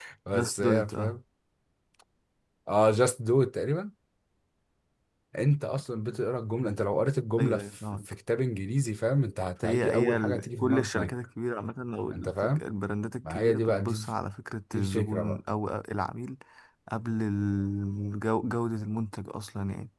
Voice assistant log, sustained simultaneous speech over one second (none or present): present